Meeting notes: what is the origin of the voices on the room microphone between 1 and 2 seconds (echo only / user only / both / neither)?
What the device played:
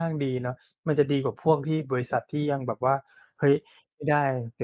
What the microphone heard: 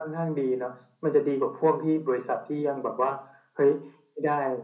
echo only